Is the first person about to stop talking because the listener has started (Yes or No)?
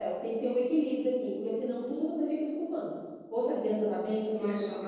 No